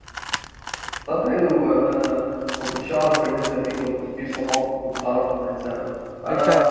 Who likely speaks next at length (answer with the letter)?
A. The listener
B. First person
B